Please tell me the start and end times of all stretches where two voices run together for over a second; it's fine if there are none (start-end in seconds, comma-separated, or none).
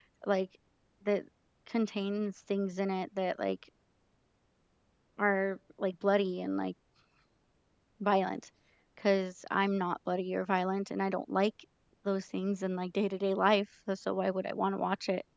none